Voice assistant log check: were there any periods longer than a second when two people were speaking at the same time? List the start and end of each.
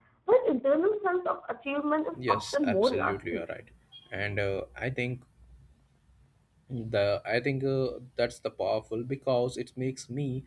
2.2-3.4

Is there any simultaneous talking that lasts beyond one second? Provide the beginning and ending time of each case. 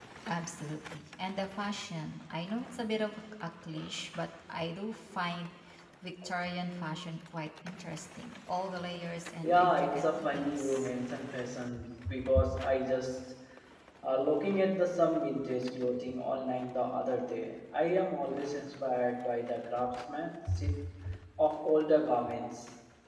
9.4-10.9

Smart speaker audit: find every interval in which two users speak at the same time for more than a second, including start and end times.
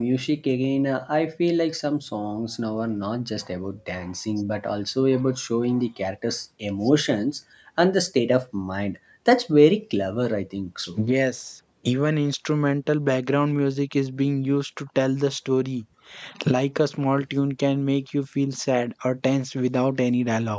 none

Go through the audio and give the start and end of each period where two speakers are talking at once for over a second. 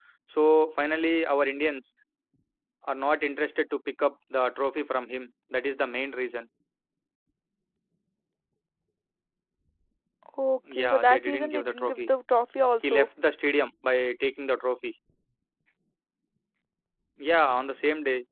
10.7-12.1

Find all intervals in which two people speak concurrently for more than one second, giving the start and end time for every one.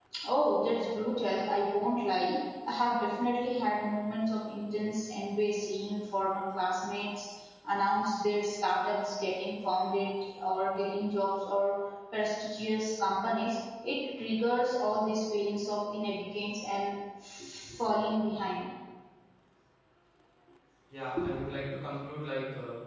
none

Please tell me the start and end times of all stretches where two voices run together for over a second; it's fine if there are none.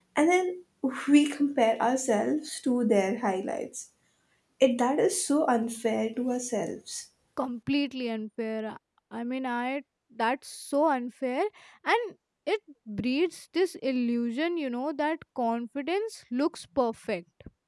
none

